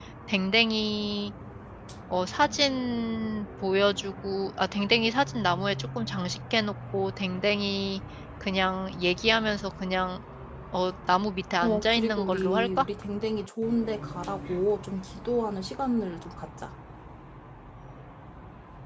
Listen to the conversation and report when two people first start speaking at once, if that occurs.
11.6 s

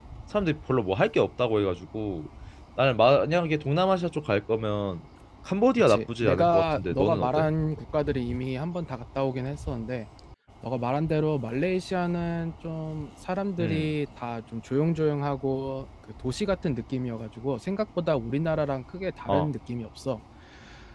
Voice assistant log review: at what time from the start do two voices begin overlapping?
5.8 s

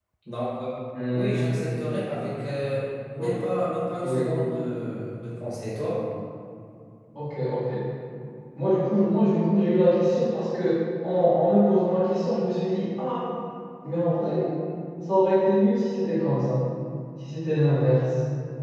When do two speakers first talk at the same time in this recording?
0.9 s

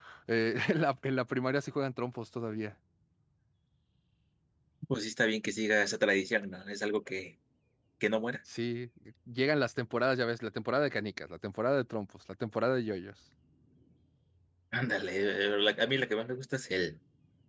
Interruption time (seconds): none

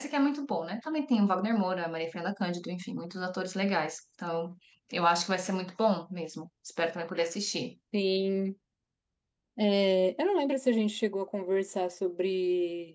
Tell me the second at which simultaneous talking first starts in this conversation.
none

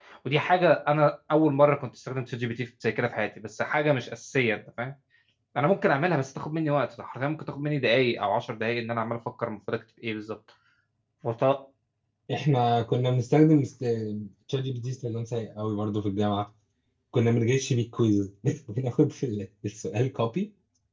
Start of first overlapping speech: none

